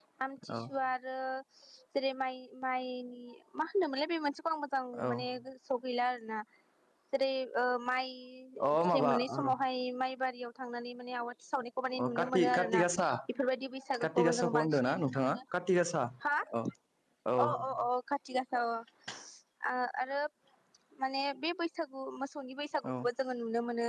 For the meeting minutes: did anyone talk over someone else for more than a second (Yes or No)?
Yes